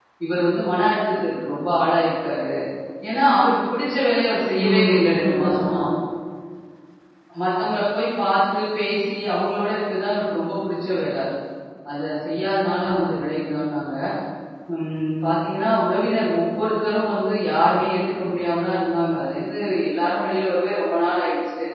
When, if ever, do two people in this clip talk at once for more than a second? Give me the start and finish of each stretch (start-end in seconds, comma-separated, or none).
4.5-5.8